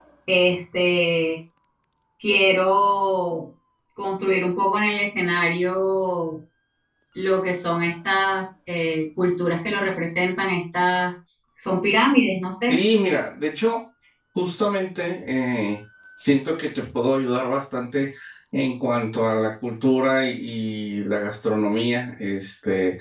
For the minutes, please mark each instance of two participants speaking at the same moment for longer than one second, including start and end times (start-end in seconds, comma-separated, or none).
none